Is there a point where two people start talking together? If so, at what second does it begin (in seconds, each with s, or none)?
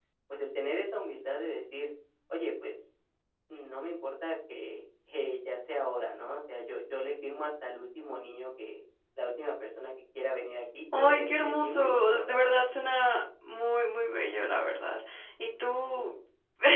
10.9 s